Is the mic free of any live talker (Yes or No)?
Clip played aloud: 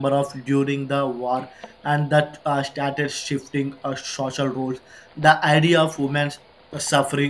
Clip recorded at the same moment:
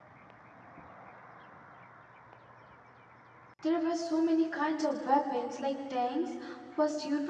No